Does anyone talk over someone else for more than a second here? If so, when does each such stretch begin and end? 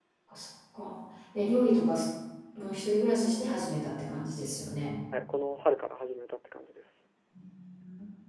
none

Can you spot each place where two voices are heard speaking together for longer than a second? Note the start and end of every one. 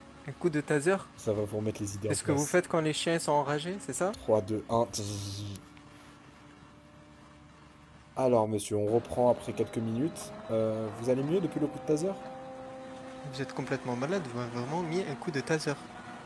none

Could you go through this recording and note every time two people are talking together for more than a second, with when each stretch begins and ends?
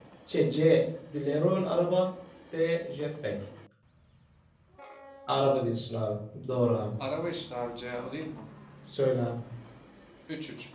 none

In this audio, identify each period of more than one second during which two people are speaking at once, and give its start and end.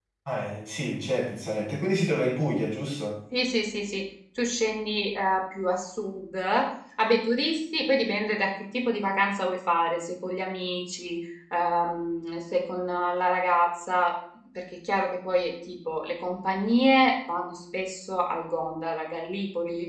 none

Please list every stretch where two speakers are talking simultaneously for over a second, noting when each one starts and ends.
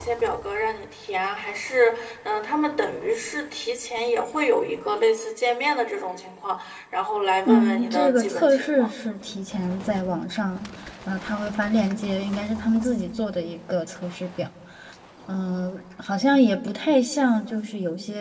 7.4-8.9

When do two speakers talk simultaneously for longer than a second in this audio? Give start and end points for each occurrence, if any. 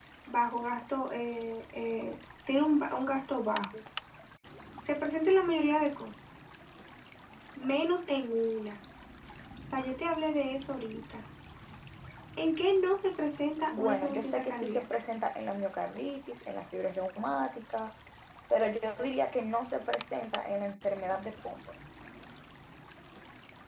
13.7-15.0

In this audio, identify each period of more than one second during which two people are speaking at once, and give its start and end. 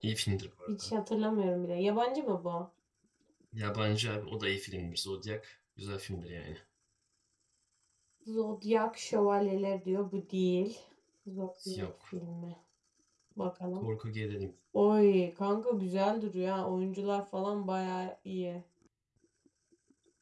none

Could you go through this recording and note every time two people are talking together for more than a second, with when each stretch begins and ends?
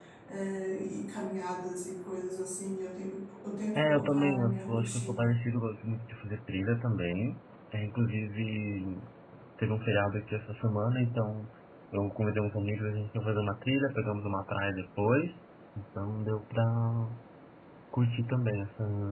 3.8-5.3

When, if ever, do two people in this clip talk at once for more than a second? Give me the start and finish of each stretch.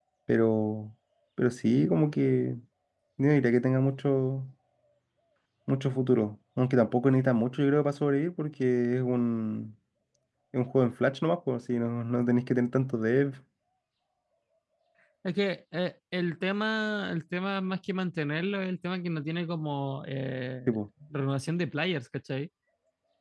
none

